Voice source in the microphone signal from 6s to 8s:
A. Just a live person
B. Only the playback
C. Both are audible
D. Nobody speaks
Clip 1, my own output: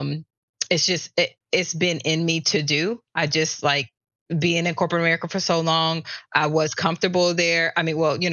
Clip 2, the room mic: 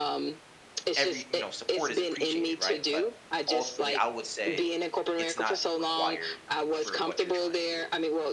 C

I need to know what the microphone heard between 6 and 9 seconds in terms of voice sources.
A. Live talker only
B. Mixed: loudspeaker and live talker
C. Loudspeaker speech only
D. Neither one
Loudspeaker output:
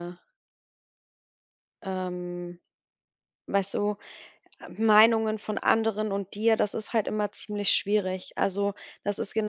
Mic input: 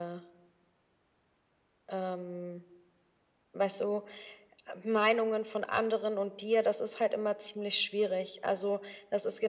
C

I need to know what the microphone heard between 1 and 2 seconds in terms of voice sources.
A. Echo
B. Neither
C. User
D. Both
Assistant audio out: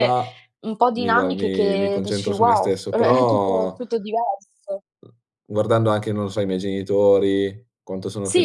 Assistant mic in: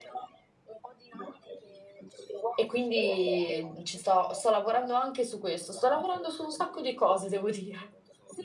A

